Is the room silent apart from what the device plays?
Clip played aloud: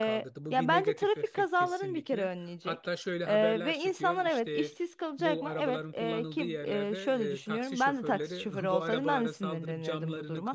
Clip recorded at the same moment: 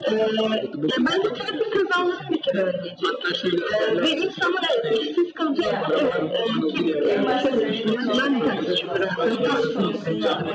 No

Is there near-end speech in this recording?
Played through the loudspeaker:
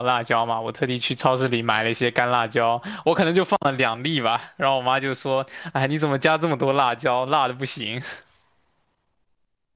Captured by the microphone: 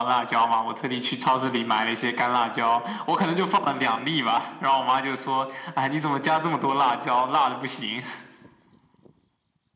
No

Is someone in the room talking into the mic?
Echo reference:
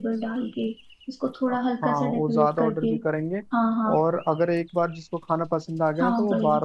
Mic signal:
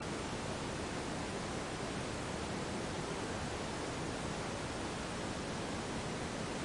No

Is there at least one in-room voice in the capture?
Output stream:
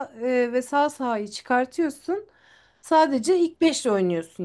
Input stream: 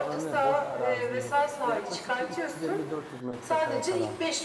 Yes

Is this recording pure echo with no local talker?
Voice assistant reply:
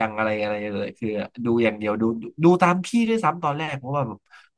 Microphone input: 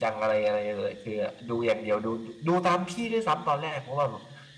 Yes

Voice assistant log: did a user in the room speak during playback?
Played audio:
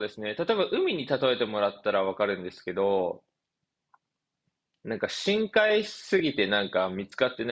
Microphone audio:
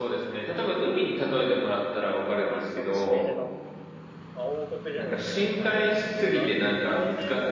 Yes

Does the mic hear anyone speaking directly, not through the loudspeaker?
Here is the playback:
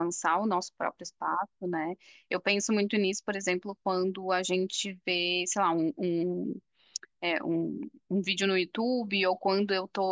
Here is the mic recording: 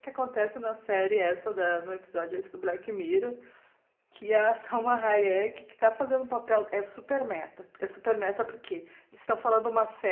Yes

